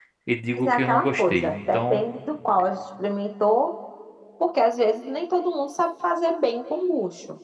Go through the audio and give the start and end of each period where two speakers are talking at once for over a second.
0.5-2.1

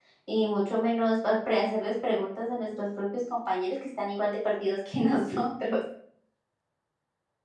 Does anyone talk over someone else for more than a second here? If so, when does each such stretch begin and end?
none

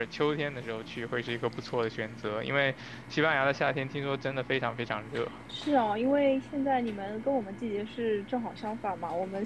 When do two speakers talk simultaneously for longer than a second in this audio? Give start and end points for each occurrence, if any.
none

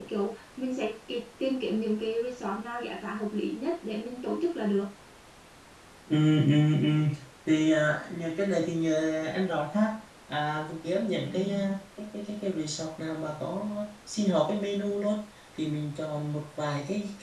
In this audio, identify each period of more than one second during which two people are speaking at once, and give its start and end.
none

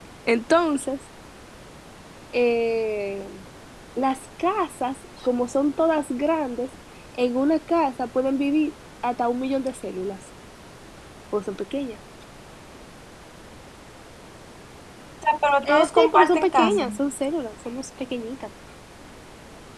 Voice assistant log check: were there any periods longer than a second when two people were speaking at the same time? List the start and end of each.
15.6-16.9

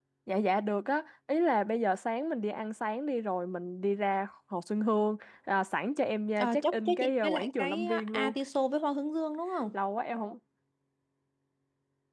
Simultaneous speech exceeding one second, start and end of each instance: 6.4-8.3

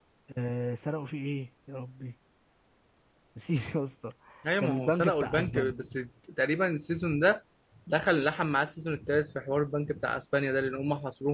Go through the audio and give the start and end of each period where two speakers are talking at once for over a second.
4.6-5.8

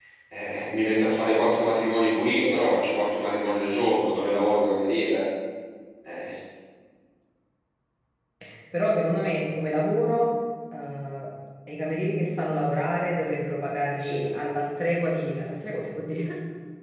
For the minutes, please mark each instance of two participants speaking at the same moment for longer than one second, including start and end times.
none

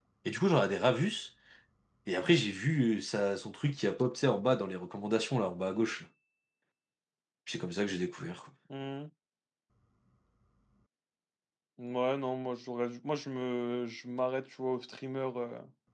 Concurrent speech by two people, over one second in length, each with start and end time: none

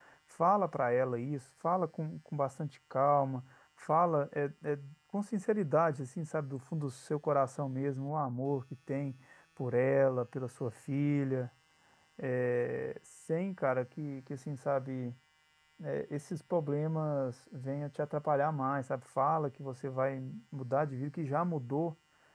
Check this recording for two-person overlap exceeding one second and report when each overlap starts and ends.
none

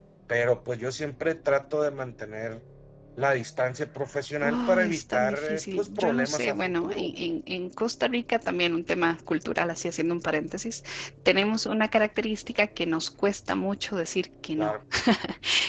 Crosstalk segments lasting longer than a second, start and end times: 4.4-7.2

